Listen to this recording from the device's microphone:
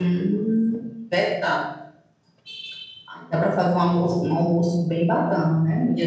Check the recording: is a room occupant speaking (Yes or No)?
Yes